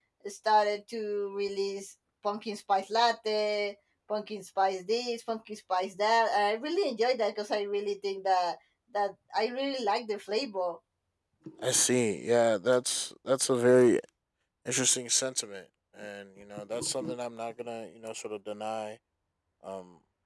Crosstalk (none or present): none